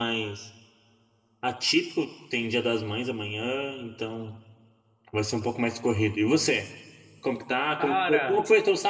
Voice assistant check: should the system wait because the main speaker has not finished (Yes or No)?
Yes